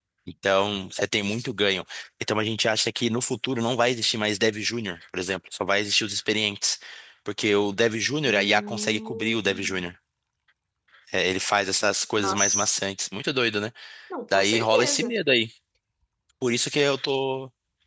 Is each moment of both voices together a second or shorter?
No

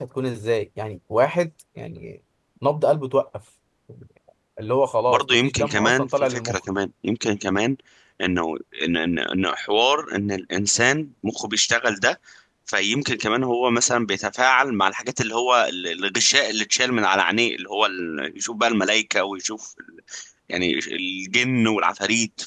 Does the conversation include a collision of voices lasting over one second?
Yes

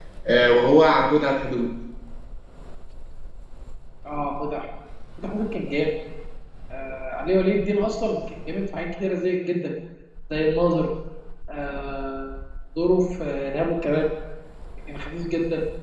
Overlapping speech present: No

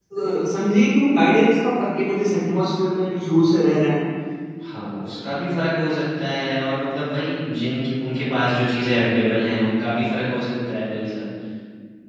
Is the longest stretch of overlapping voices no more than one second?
Yes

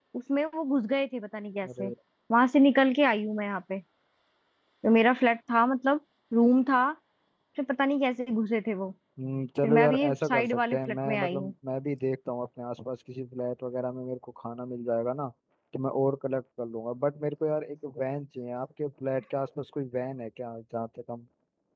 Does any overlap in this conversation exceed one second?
Yes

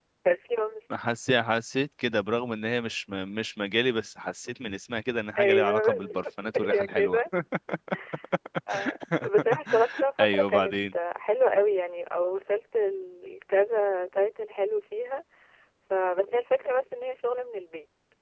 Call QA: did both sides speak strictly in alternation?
No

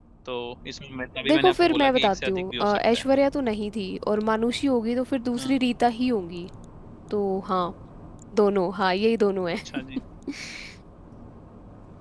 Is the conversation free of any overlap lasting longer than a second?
No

